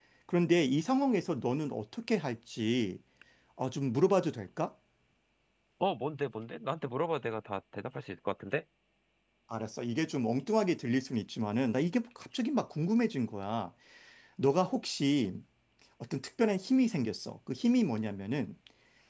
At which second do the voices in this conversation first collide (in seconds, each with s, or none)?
none